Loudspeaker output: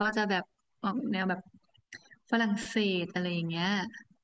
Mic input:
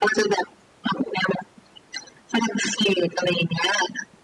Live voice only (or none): none